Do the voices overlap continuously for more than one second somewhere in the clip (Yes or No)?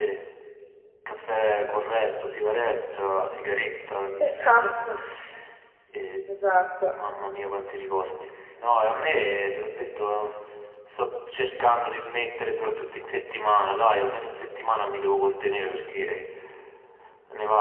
No